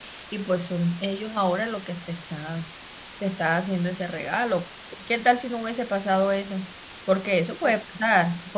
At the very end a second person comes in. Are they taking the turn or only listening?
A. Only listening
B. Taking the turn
A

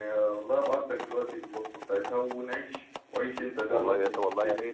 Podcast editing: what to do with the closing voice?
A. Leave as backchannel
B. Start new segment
B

